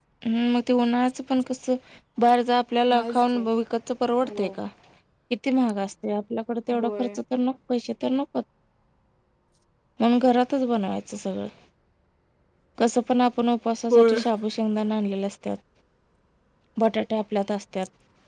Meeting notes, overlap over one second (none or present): none